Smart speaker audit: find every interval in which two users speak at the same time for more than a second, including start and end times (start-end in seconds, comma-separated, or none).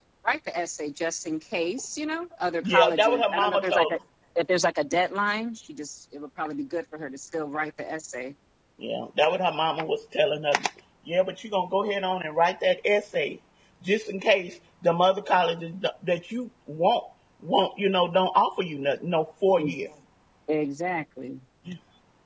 2.6-4.0